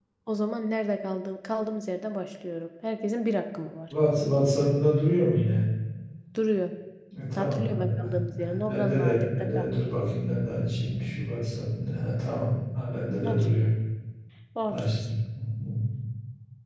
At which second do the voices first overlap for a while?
7 s

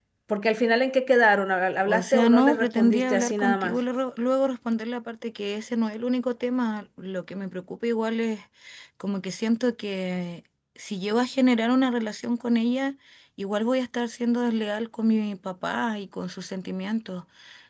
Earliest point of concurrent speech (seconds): 2 s

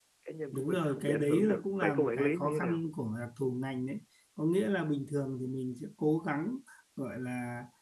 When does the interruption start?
1 s

